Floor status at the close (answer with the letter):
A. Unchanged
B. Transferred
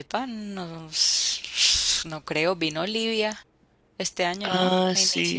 B